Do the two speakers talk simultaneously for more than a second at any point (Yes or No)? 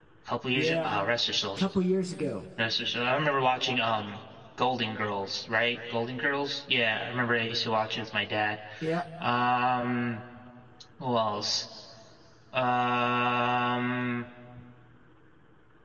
No